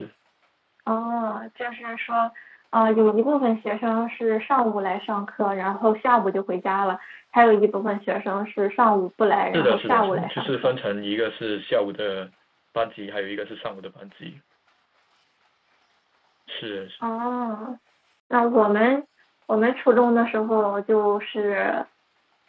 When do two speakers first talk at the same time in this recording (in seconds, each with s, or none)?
9.5 s